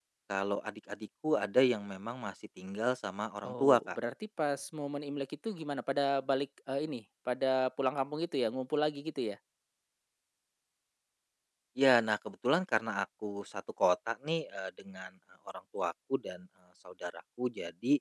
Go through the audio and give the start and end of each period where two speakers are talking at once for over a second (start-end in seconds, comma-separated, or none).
none